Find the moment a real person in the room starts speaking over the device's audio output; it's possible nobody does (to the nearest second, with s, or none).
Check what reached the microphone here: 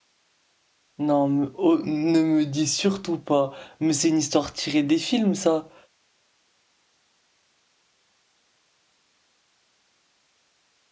1 s